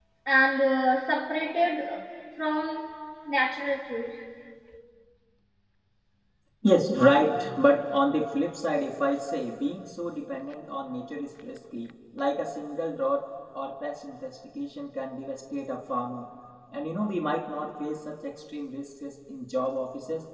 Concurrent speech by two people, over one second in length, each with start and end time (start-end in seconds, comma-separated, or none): none